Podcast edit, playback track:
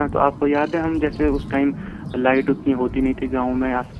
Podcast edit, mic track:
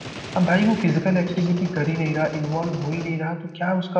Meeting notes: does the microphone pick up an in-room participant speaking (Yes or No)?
Yes